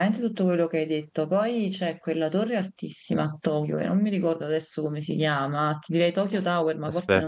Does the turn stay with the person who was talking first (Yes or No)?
Yes